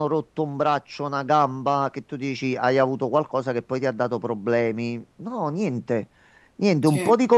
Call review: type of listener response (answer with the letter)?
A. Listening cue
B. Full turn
A